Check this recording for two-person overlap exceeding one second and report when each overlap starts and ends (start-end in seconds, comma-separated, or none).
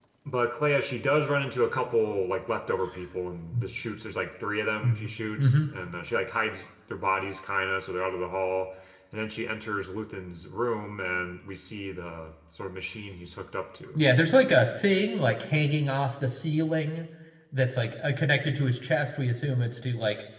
none